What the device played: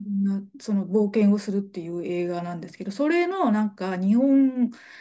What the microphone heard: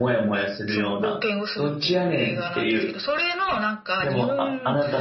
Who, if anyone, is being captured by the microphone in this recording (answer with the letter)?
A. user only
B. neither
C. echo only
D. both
D